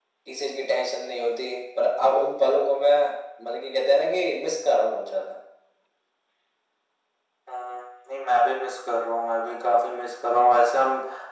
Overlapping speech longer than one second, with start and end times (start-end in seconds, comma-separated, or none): none